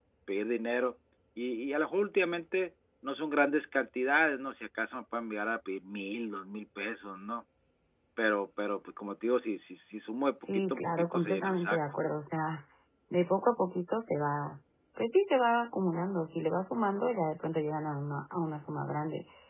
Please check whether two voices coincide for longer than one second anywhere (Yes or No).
Yes